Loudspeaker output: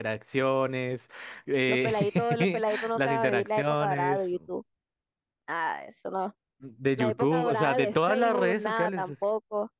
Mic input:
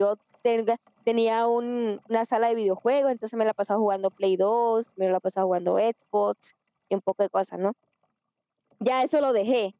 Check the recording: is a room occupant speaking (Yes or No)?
Yes